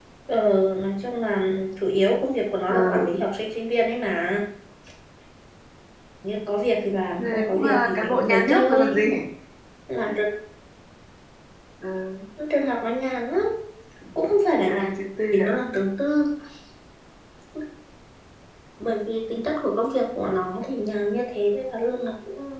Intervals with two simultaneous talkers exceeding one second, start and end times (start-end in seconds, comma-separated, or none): 7.2-9.0